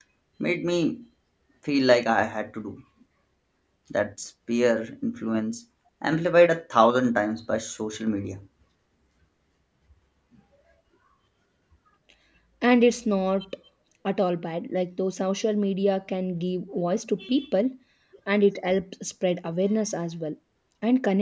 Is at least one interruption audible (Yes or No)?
No